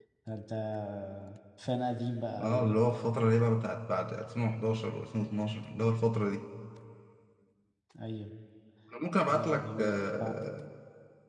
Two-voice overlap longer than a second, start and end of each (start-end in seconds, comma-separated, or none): 9.3-10.5